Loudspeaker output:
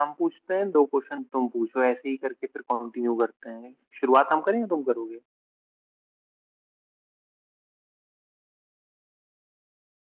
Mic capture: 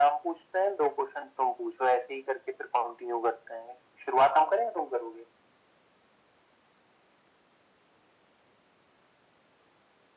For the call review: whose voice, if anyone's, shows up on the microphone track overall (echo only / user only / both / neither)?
echo only